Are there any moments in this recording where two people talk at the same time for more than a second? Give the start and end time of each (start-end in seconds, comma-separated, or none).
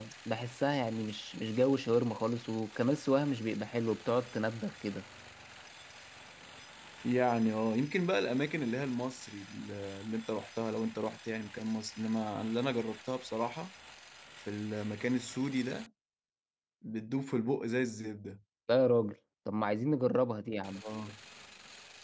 none